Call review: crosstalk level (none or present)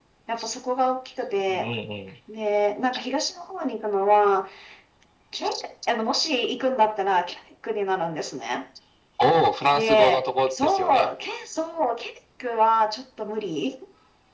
present